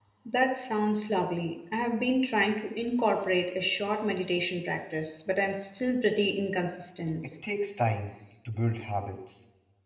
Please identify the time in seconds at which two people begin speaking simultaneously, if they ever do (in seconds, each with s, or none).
none